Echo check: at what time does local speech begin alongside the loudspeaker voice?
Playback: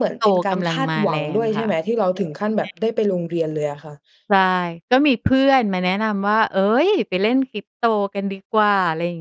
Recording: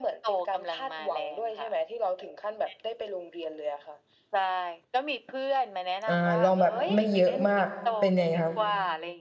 6 s

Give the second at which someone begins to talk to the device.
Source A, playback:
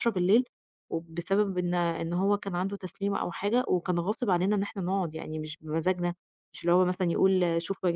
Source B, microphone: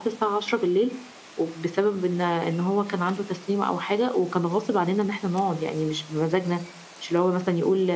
none

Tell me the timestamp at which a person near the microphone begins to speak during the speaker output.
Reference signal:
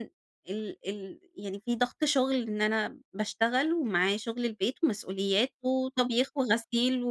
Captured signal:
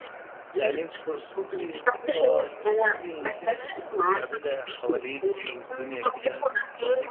1 s

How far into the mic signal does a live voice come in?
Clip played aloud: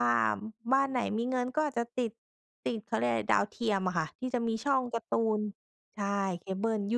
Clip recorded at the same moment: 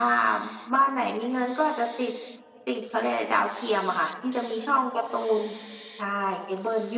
none

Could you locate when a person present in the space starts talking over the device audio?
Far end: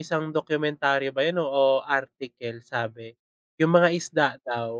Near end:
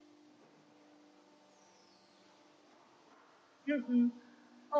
4 s

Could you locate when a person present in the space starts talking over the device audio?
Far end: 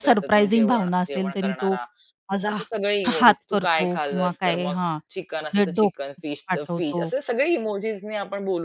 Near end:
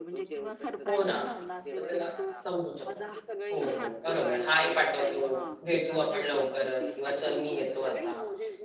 1 s

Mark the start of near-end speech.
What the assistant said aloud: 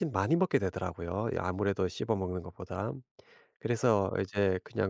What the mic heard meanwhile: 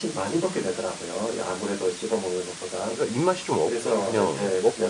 3 s

